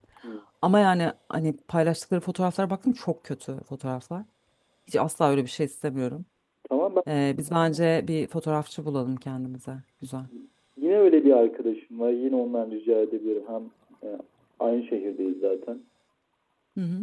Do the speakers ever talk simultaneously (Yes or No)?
No